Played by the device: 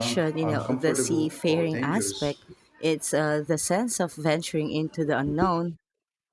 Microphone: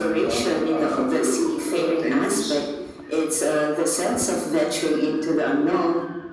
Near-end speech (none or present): none